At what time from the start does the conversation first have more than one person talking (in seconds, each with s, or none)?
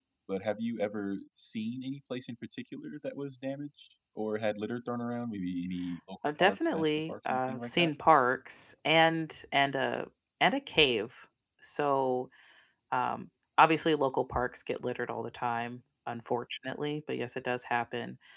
6.2 s